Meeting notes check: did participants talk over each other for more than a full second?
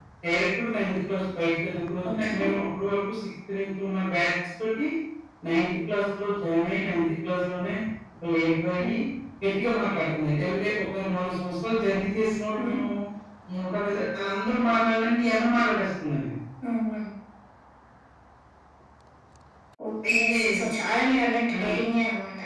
No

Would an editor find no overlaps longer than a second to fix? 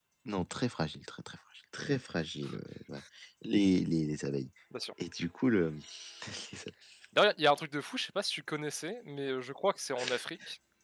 Yes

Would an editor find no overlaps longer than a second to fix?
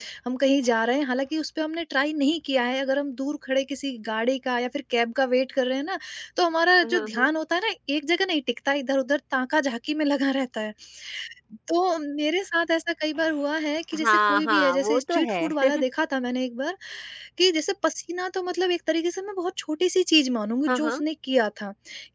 No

